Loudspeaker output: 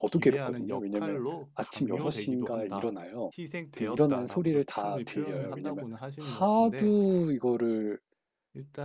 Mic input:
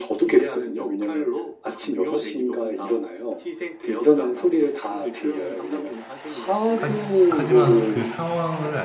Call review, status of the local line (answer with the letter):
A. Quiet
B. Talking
B